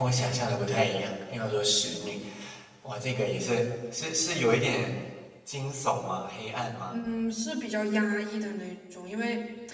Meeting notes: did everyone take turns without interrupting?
Yes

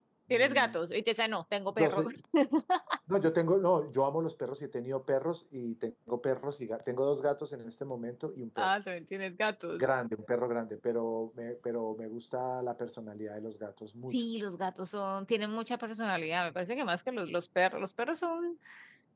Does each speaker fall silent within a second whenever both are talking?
Yes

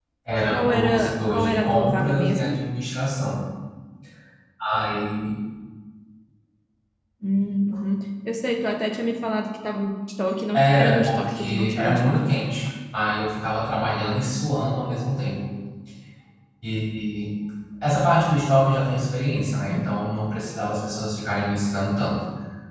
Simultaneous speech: Yes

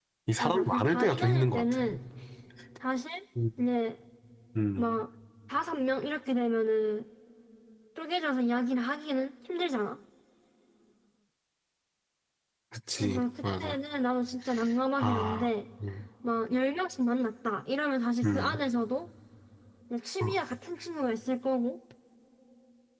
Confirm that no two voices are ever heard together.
No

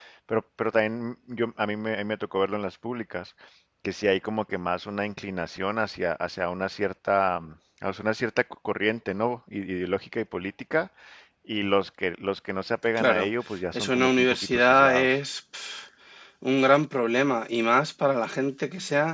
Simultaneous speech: Yes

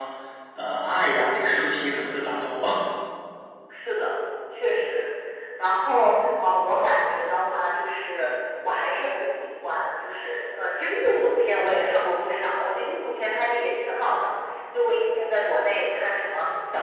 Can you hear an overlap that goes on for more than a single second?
No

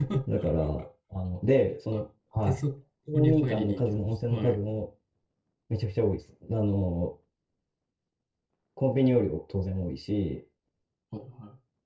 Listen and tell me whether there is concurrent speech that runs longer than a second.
Yes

